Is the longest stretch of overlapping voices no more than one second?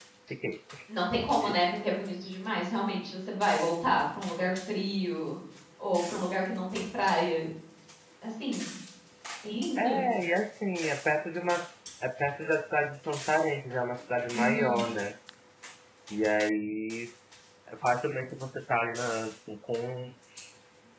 Yes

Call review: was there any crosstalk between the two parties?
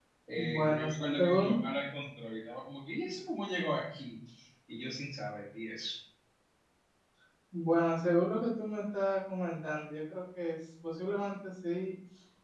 Yes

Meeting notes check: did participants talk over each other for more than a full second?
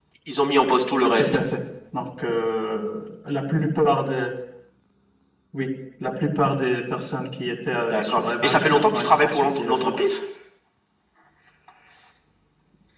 Yes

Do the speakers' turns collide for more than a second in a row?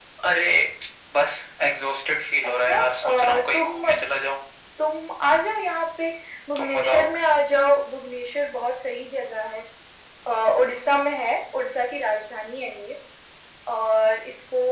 Yes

